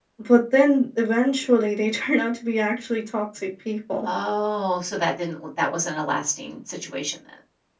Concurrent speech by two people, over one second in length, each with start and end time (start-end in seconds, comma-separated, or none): none